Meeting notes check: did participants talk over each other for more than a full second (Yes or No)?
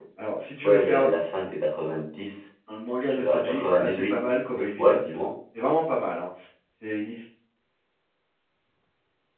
Yes